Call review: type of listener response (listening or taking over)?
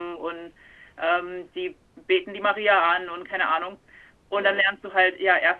listening